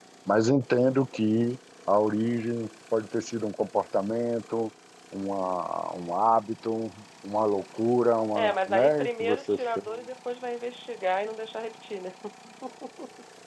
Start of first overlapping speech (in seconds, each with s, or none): 8.3 s